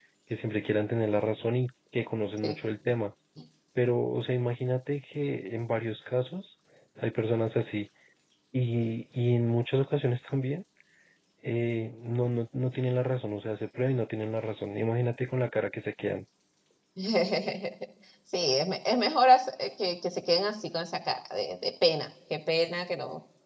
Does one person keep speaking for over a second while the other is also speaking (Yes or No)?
No